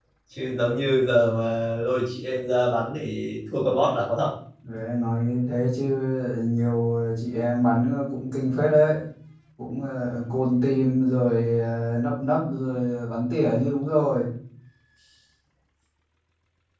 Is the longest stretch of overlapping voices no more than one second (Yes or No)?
Yes